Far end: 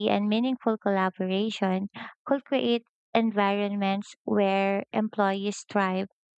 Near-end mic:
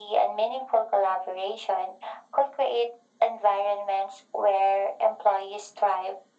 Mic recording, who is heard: echo only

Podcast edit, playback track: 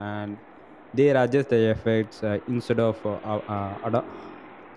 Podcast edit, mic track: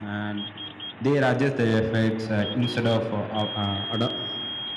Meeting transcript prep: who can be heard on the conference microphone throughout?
echo only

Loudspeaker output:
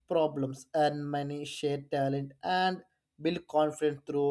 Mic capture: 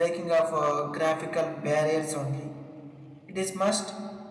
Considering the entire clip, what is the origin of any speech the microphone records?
user only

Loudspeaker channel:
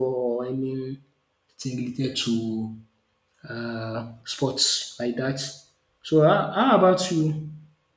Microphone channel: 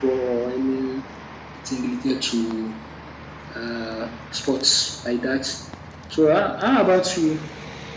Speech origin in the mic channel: echo only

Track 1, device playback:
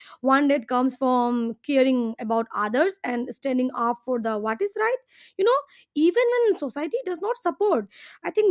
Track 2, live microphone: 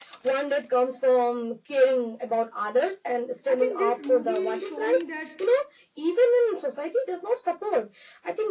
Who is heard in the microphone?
both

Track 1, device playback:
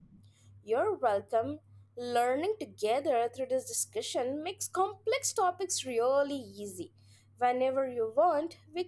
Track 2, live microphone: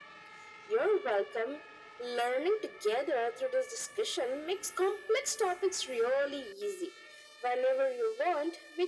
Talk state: echo only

